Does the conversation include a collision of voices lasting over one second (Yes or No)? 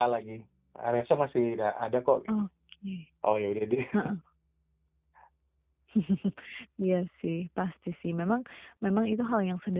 No